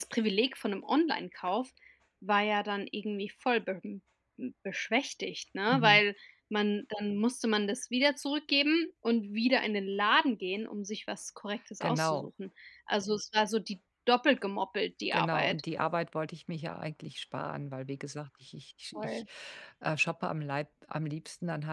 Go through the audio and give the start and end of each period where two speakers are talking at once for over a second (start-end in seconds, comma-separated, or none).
none